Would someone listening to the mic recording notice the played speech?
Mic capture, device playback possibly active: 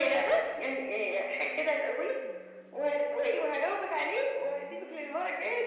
Yes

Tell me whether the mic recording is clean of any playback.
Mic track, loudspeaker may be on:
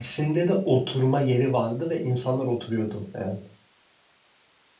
Yes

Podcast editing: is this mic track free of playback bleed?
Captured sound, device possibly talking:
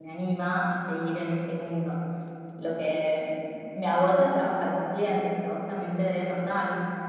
Yes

